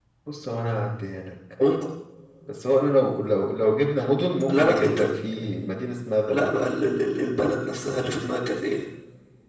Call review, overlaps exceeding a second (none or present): none